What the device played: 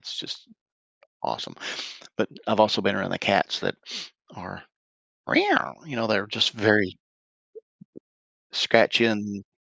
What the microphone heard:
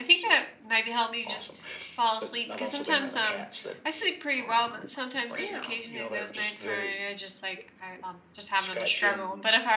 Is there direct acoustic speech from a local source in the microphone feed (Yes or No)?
Yes